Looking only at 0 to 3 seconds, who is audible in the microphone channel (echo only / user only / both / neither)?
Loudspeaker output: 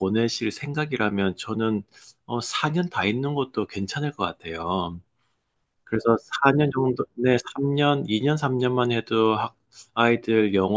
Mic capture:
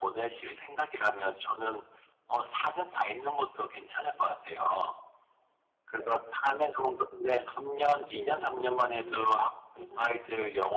echo only